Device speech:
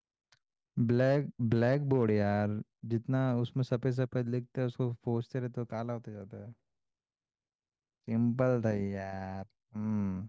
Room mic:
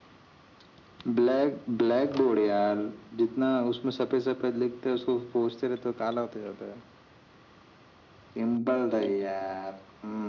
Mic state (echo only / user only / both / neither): echo only